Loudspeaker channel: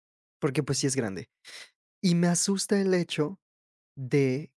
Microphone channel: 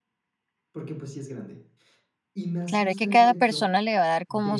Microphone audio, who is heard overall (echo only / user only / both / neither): both